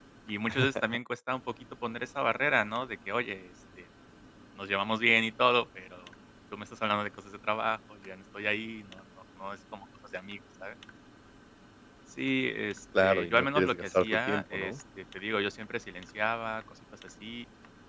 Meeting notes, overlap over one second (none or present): present